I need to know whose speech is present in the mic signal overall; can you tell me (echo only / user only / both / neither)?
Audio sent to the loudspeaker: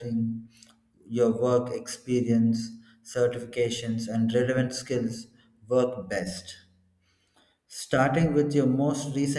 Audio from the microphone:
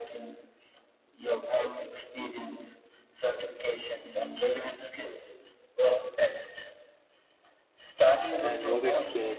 both